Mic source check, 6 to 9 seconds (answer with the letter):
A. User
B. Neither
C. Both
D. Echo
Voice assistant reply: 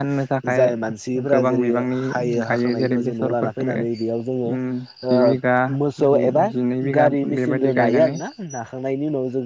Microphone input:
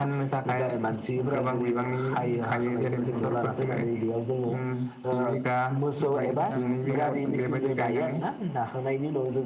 C